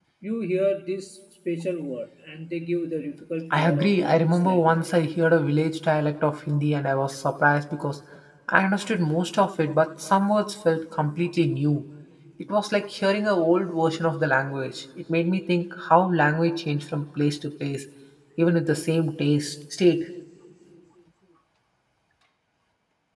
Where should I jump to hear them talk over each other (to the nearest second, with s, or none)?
4 s